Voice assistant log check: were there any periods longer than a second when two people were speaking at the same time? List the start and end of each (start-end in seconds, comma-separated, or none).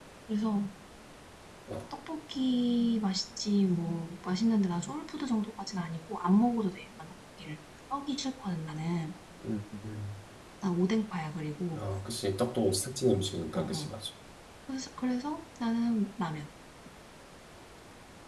none